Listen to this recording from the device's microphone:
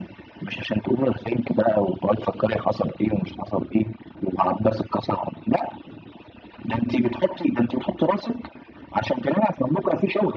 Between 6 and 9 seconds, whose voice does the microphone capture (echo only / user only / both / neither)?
echo only